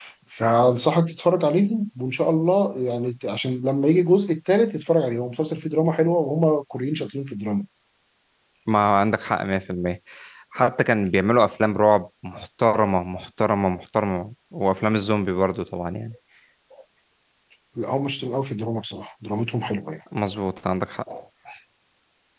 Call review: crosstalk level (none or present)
none